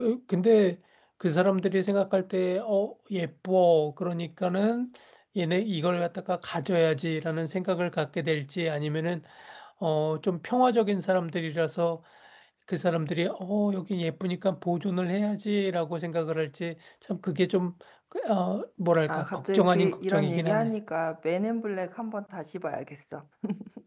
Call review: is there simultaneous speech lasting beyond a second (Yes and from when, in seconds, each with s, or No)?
Yes, from 19.1 s